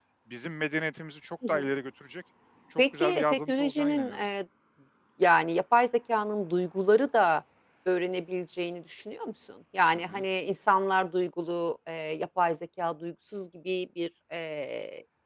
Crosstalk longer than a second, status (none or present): present